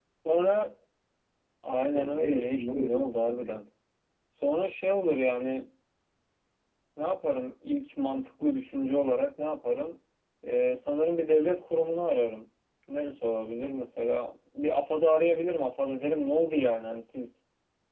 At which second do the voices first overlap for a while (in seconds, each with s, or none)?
1.9 s